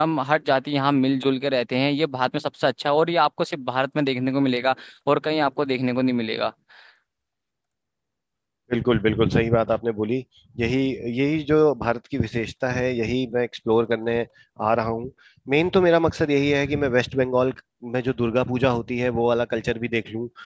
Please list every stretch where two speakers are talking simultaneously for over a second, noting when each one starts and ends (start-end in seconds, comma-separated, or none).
none